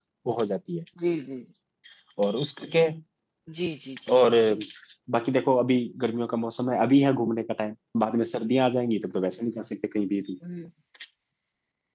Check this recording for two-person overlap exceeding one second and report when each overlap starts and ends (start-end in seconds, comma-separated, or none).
none